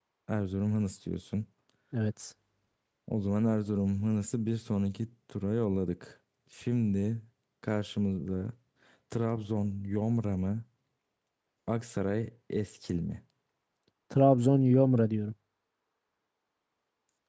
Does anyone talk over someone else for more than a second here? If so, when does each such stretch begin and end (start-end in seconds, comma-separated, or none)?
none